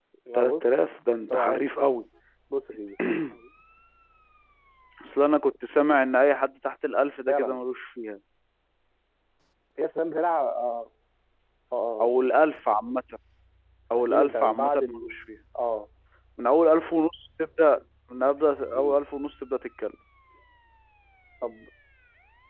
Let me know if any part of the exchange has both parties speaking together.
Yes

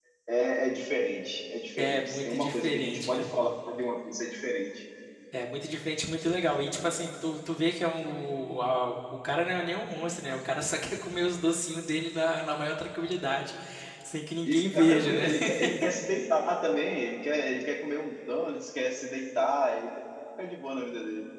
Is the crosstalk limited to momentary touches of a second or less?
No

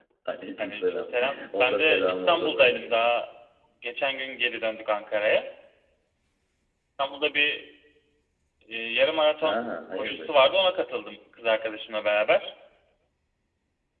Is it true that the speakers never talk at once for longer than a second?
No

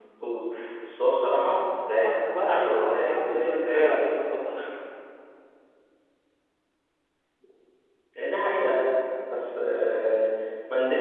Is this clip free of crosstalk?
No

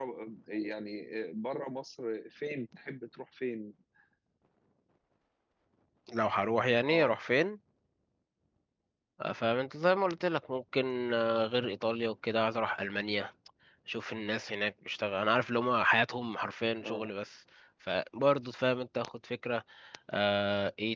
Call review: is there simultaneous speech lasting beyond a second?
No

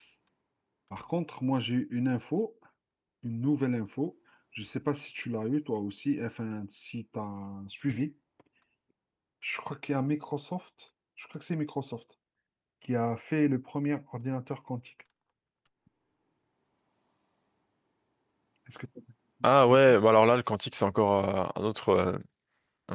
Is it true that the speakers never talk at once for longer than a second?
Yes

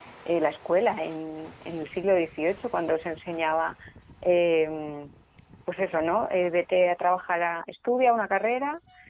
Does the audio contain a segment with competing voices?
No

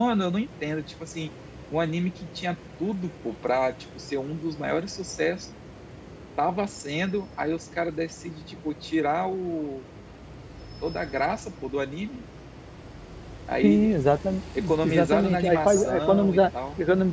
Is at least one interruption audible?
Yes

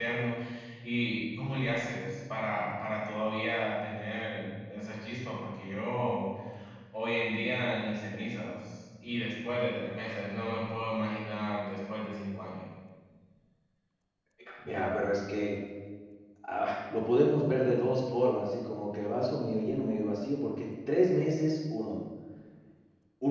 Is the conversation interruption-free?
Yes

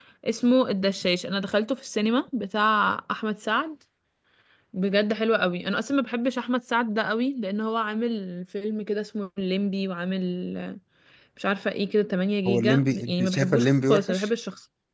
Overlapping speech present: Yes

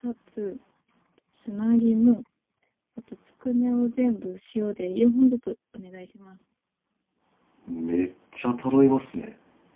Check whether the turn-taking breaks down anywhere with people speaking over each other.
No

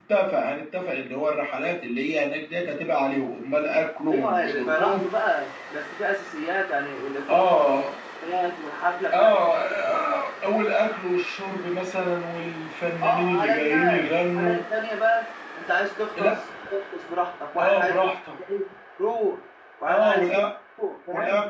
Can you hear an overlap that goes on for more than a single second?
Yes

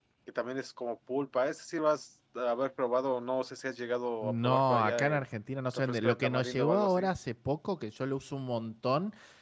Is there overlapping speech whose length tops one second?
Yes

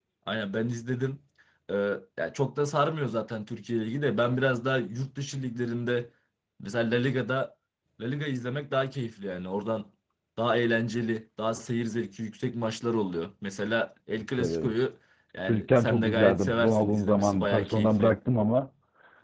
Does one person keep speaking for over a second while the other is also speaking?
Yes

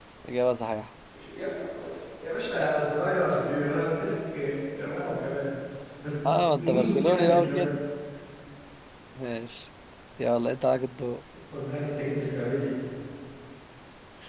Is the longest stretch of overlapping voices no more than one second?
No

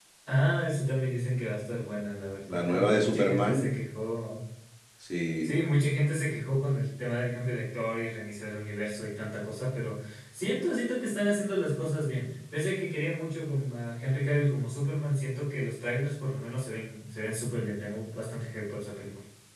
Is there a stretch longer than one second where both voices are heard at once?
Yes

